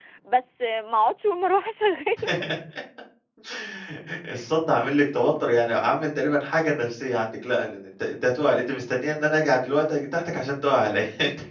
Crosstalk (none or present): none